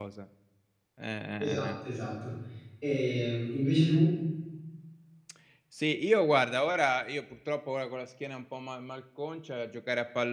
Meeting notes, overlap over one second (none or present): none